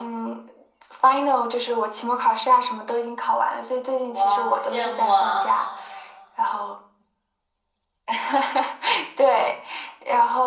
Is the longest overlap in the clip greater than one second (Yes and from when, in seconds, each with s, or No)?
Yes, from 4.1 s